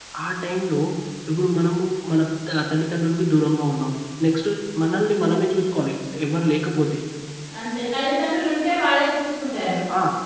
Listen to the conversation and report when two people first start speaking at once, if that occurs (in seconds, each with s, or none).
none